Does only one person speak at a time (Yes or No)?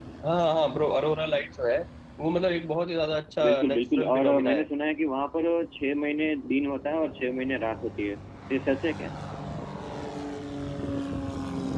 No